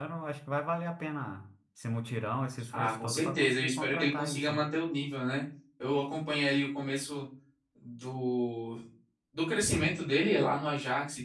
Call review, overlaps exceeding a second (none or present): present